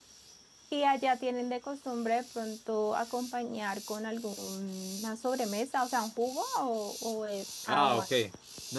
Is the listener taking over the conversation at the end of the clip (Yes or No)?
Yes